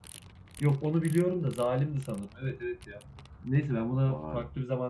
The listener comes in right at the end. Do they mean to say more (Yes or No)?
No